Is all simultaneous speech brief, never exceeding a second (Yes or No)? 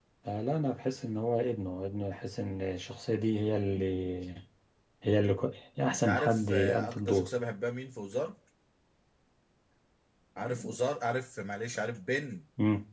No